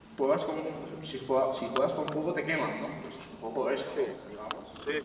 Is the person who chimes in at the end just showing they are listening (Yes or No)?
No